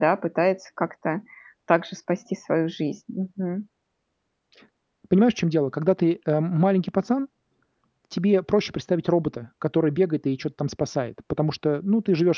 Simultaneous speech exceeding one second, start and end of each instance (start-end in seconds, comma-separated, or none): none